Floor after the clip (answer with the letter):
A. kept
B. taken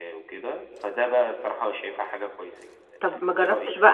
B